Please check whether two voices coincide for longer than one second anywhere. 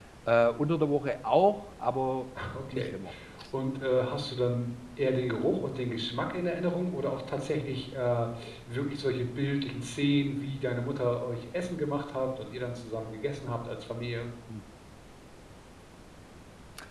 No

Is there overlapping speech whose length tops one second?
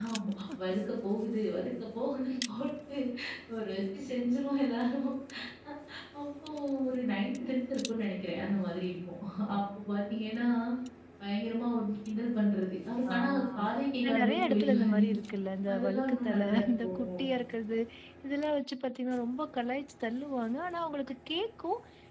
Yes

